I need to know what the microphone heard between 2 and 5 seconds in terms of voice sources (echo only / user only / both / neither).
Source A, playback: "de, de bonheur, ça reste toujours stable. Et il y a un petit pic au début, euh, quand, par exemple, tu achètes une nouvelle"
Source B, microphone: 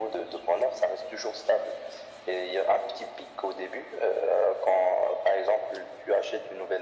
echo only